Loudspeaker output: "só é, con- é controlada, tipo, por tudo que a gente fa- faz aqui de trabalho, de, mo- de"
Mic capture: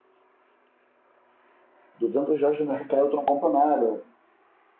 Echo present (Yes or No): No